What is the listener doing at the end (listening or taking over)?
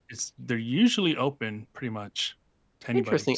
taking over